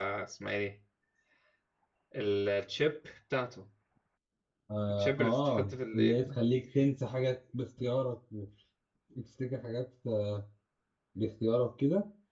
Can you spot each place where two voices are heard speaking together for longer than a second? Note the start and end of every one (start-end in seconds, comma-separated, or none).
5.0-6.4